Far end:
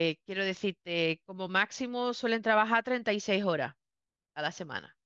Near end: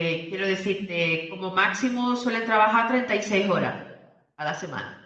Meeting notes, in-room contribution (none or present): none